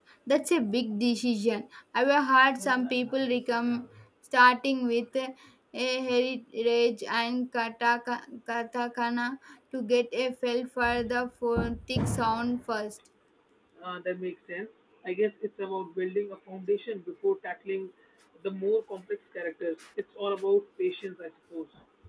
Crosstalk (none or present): none